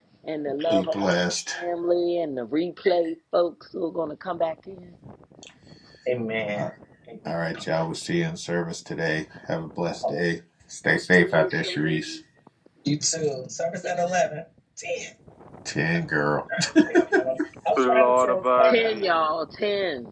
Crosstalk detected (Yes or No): Yes